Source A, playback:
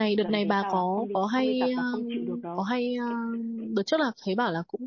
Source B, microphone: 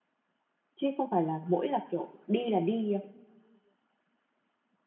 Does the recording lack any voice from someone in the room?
No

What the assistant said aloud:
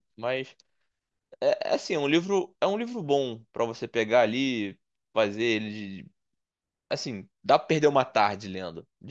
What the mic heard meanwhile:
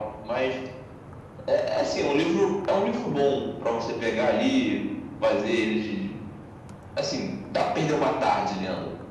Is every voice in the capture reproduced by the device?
Yes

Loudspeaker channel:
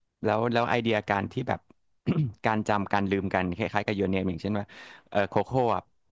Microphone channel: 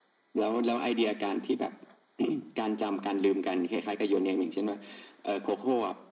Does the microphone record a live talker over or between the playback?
No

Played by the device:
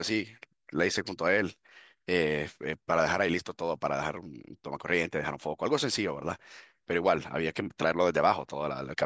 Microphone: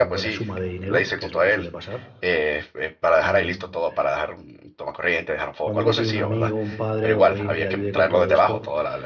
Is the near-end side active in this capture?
Yes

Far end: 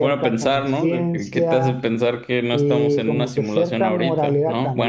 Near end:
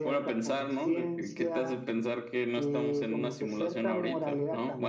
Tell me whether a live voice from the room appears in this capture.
No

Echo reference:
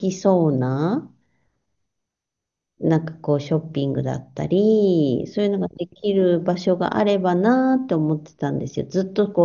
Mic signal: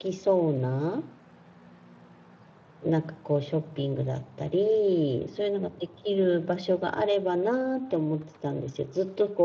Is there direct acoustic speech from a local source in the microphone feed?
No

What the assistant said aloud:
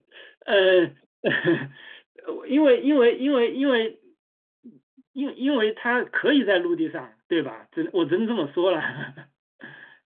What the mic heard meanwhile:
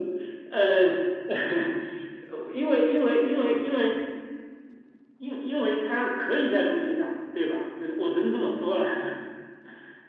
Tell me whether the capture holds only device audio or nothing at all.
Yes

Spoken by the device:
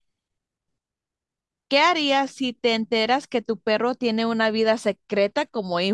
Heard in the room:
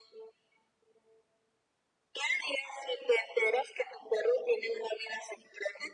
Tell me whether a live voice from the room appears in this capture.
No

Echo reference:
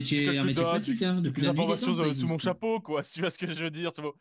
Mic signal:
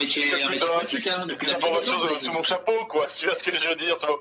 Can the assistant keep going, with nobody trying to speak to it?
Yes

